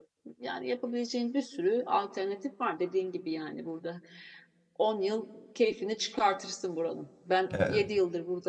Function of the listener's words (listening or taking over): listening